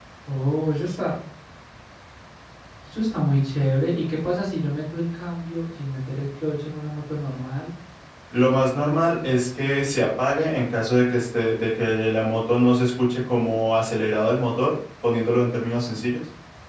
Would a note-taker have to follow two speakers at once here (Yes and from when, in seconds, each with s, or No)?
No